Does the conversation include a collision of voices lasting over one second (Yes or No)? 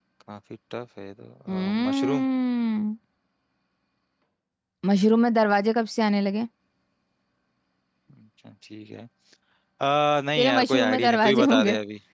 Yes